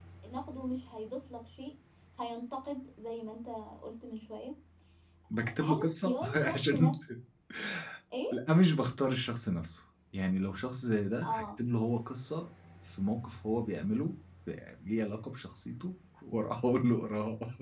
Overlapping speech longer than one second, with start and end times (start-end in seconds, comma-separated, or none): 5.5-6.9